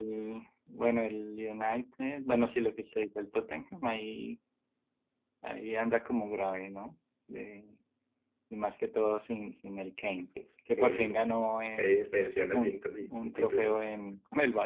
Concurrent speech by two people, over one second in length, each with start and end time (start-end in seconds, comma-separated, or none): 12.5-13.8